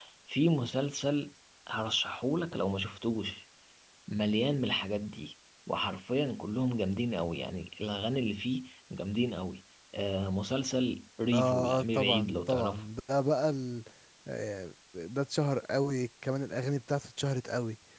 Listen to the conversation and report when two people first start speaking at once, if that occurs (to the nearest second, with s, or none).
11 s